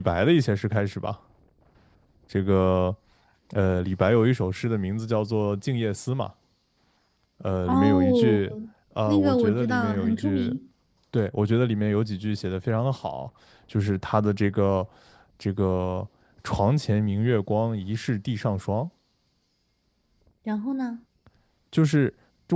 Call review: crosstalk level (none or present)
present